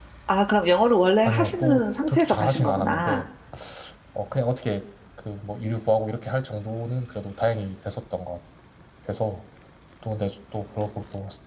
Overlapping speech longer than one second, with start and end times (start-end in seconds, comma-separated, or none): 1.2-3.2